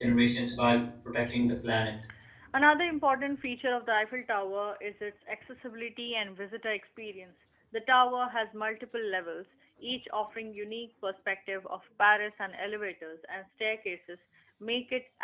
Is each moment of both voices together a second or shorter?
Yes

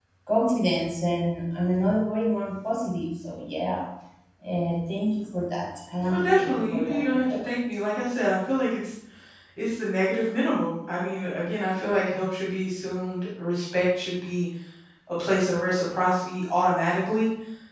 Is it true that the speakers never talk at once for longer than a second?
No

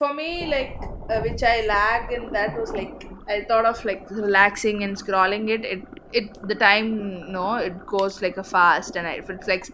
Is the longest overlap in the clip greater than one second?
No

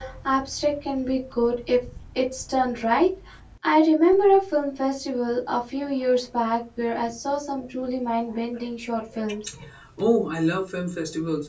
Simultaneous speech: No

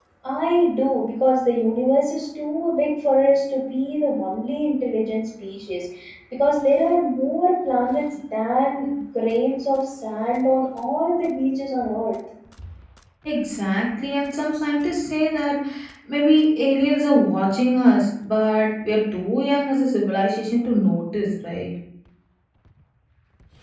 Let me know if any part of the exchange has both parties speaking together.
No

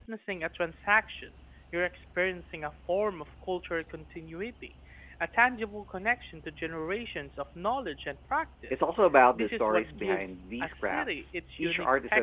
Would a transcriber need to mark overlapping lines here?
Yes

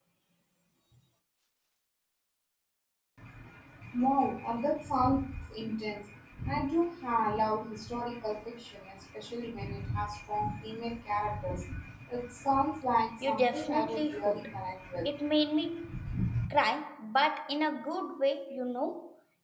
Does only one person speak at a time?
No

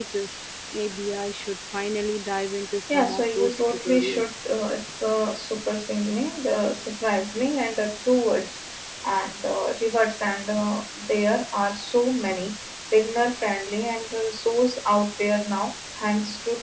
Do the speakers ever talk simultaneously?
Yes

